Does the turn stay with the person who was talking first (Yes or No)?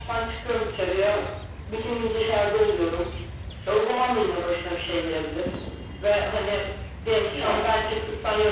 Yes